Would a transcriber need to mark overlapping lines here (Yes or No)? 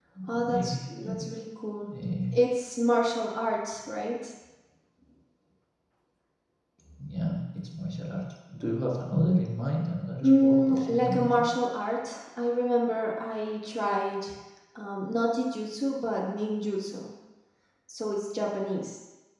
Yes